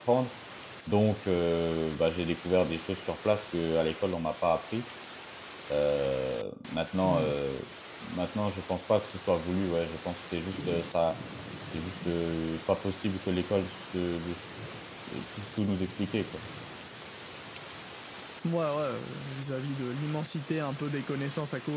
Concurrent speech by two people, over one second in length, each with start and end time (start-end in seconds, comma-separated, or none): none